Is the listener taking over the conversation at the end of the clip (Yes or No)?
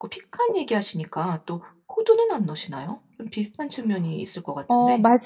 Yes